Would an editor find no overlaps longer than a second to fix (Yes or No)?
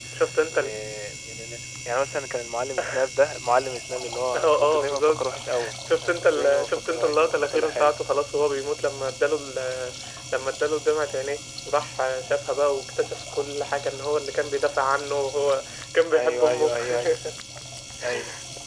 No